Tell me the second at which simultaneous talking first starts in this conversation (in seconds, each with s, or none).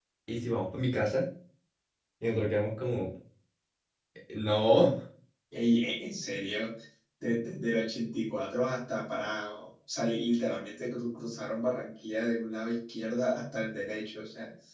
none